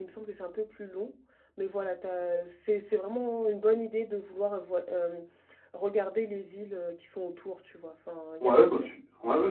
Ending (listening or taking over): taking over